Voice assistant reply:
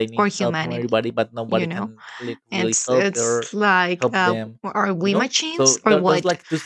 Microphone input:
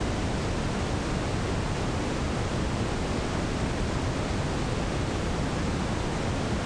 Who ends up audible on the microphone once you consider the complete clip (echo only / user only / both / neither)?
neither